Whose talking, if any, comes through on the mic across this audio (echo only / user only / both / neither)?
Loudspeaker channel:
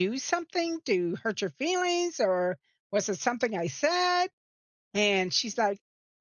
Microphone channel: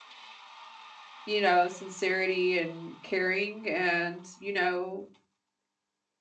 user only